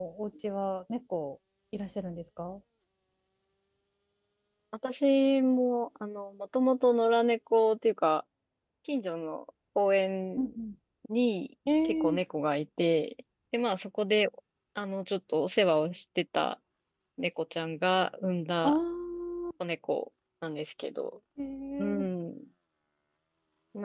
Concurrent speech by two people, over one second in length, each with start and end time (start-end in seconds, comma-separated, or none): none